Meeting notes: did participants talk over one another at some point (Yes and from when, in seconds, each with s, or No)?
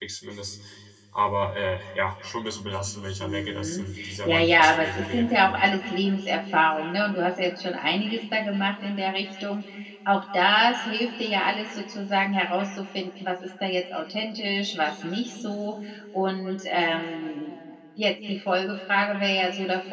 Yes, from 3.2 s